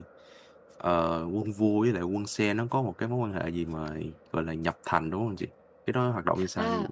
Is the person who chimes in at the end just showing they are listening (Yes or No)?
No